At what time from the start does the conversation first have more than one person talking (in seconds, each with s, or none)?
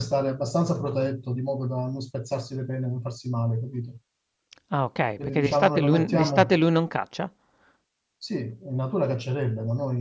5.2 s